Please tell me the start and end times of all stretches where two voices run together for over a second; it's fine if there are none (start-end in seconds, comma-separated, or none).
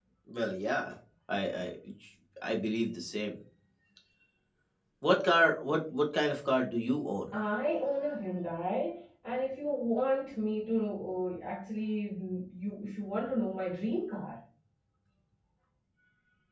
none